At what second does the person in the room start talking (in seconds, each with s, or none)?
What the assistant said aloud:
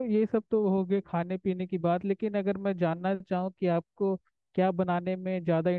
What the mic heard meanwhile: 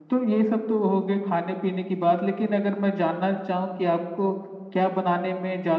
none